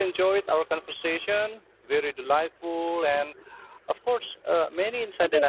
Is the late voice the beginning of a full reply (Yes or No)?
Yes